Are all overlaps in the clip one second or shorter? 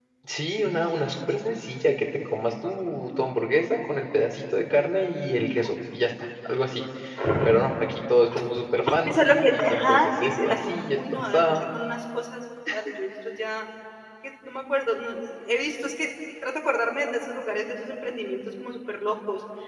No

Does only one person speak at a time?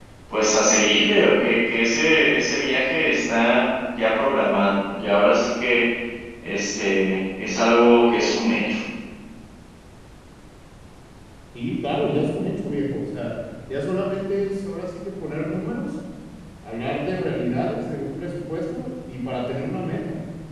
Yes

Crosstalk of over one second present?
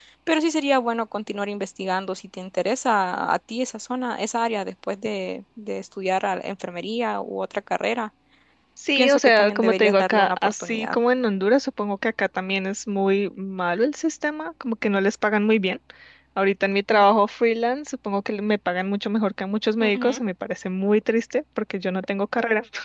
Yes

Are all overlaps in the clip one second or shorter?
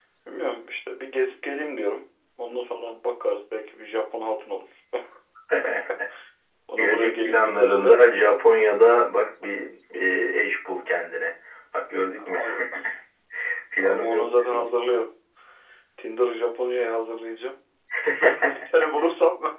No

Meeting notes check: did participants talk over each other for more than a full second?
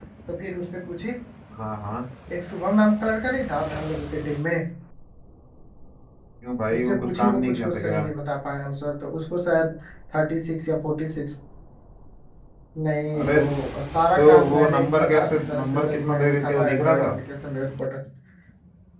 Yes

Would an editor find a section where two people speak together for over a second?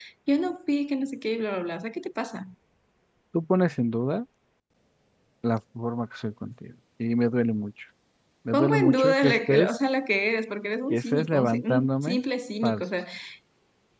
Yes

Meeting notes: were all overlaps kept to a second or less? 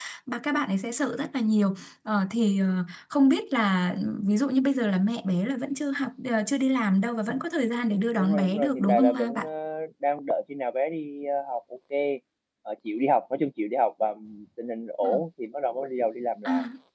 No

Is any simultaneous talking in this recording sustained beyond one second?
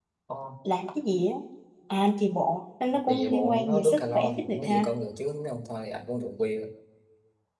Yes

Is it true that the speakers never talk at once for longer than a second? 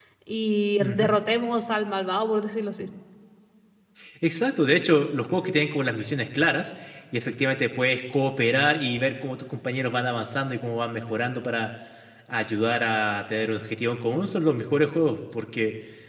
Yes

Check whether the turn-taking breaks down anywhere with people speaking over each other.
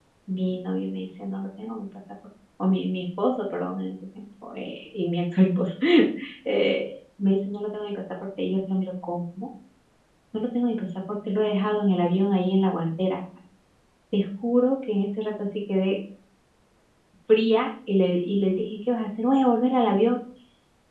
No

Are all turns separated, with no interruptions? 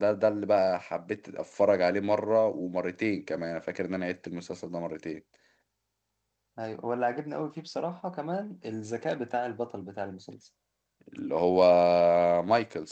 Yes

